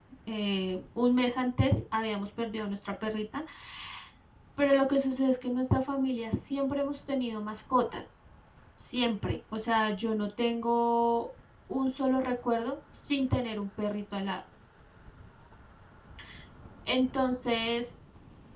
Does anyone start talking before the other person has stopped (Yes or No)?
No